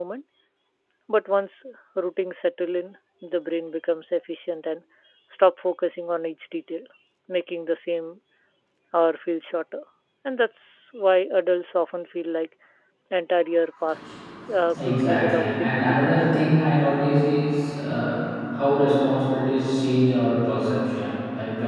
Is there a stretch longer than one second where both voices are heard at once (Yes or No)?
Yes